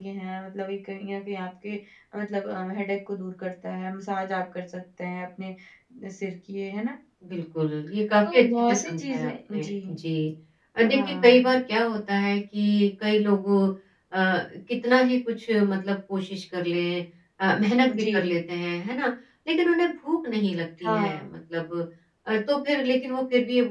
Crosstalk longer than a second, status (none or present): present